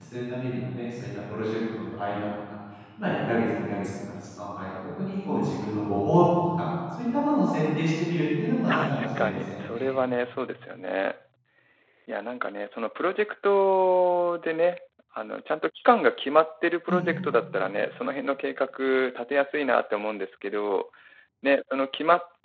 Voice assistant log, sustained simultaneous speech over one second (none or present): present